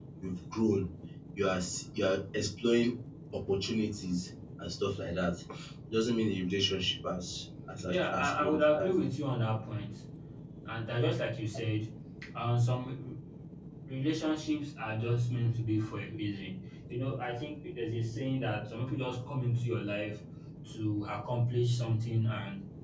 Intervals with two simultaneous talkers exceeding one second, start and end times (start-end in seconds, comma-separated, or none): 7.8-9.0